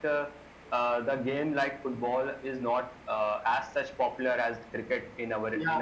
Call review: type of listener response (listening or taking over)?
taking over